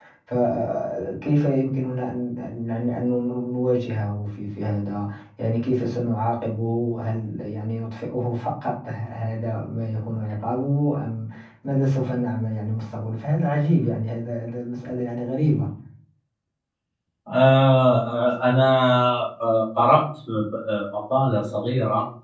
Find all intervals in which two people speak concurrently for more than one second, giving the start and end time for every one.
none

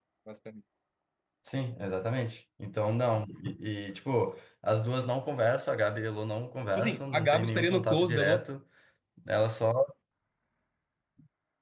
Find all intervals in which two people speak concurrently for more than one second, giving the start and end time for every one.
6.8-8.4

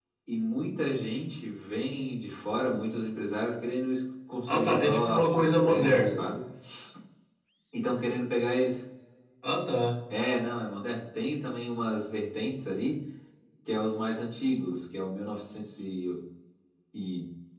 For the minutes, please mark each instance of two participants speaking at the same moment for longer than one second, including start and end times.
4.5-6.2

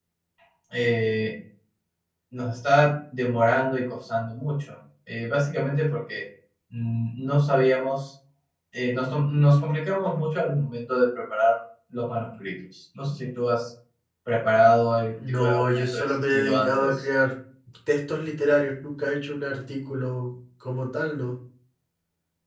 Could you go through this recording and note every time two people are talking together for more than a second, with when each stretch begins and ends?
15.2-17.0

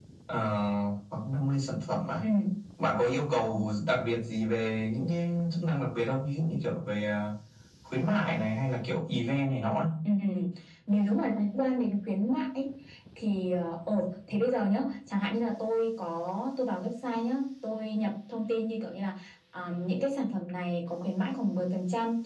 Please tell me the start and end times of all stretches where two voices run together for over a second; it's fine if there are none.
none

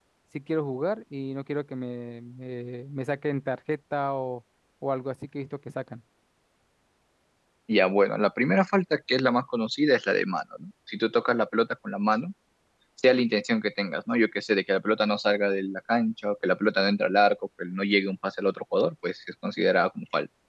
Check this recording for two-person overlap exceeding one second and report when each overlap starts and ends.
none

